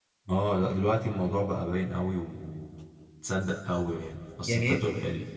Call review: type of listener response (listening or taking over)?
listening